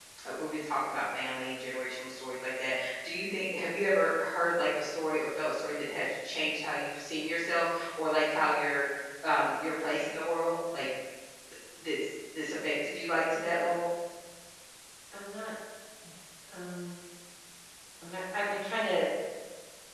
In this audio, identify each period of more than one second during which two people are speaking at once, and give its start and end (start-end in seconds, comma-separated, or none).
none